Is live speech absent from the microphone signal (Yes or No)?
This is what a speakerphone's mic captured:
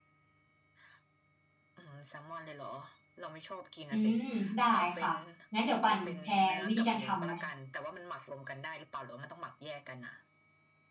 No